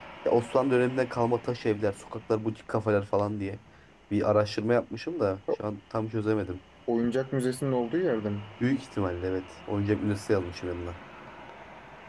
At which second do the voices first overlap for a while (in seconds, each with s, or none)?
none